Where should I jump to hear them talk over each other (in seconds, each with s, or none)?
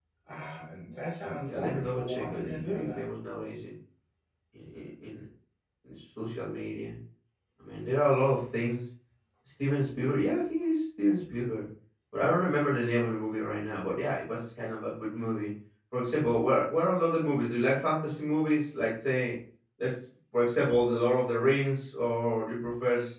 1.5 s